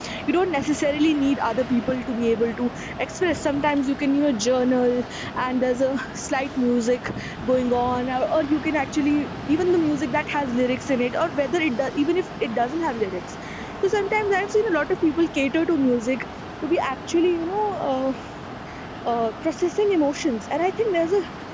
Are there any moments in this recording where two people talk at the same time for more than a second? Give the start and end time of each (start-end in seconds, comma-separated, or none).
none